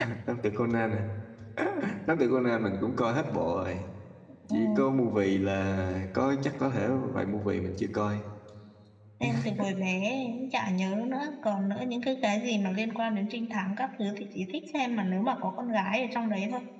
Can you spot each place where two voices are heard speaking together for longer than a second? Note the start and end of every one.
none

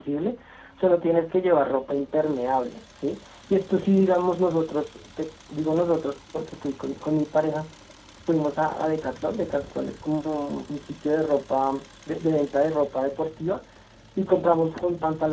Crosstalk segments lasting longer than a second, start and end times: none

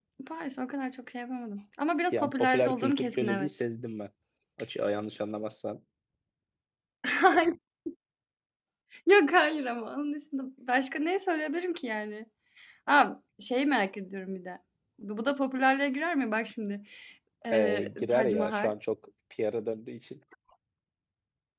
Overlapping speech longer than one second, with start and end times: 2.1-3.6, 17.5-18.7

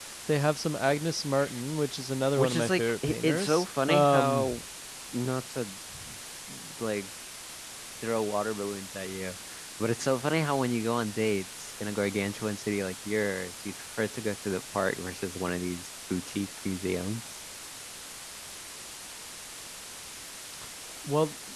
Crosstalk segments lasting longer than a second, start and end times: 2.4-4.5

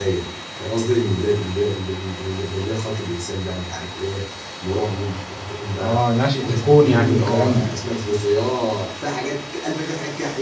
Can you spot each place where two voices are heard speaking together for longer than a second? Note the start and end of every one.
6.4-7.7

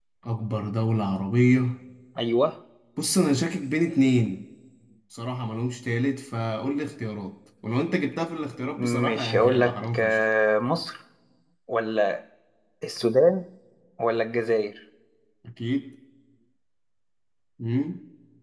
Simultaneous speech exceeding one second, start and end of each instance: 8.8-10.2

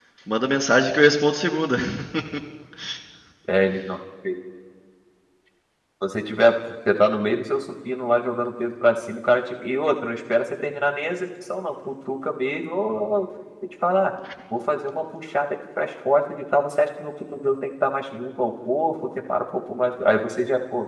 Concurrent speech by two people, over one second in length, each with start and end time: none

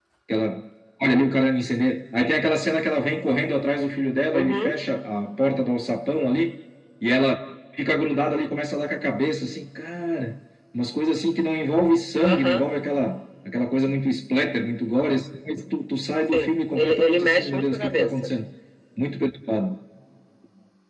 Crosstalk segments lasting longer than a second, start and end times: 16.2-18.3

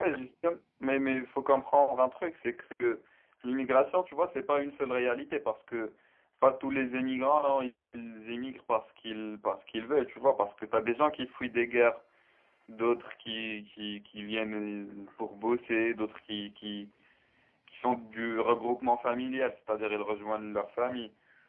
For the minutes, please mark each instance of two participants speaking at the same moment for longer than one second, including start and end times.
none

